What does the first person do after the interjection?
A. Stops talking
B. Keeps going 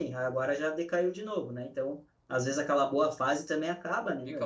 A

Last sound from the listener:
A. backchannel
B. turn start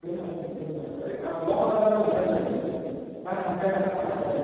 A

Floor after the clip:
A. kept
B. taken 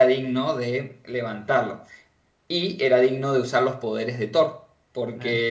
A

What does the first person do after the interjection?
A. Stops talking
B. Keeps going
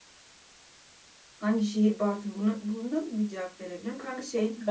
B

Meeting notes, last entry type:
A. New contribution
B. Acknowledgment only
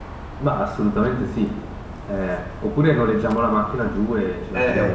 A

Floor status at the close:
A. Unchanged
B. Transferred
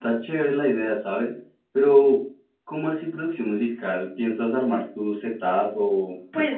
B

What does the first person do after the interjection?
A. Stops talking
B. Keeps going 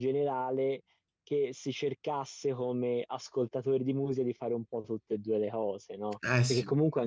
B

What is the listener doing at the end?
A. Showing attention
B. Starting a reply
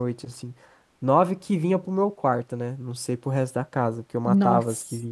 A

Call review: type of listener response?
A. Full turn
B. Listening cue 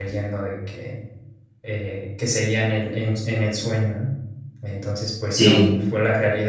B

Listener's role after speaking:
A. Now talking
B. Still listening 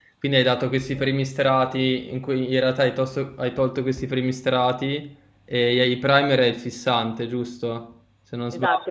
A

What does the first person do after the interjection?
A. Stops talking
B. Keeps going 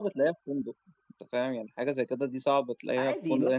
A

